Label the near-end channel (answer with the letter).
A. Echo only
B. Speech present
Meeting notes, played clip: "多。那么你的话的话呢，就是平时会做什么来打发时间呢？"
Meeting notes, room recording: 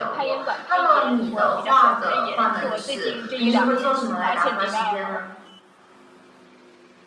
B